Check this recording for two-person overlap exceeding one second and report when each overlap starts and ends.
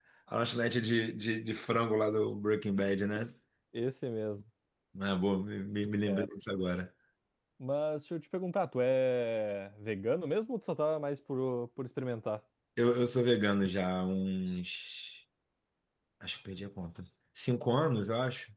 none

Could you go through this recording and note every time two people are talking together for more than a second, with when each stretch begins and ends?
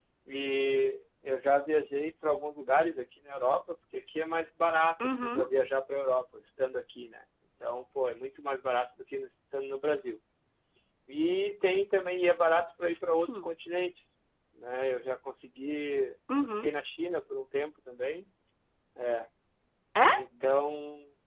none

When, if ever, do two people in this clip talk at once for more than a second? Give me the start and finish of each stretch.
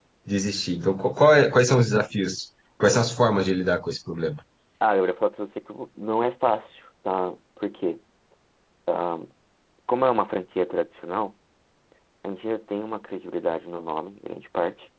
none

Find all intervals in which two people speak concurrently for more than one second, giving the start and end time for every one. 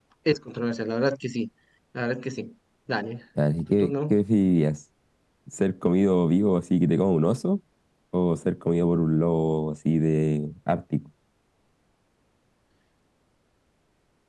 none

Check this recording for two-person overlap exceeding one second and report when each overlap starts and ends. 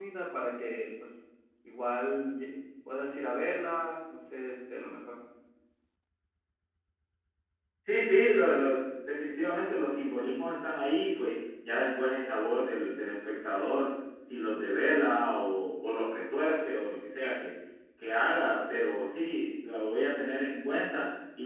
none

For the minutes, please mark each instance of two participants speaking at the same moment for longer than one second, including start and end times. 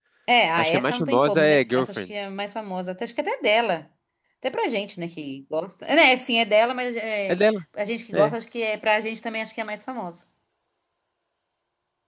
0.6-2.0

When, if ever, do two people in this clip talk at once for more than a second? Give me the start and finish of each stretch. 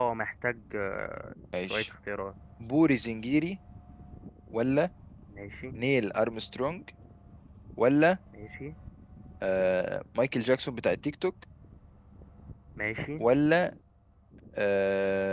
none

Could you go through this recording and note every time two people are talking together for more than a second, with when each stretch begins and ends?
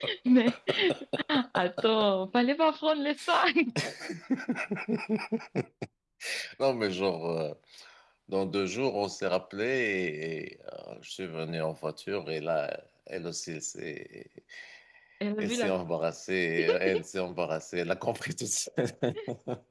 none

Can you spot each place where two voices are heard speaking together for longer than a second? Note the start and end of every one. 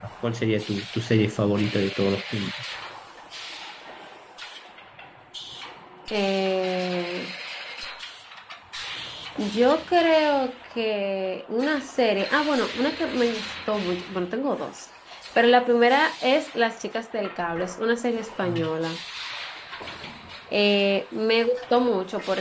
none

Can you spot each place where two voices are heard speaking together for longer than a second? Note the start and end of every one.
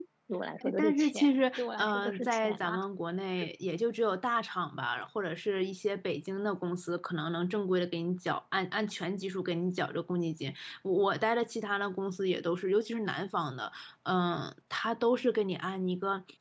0.6-2.8

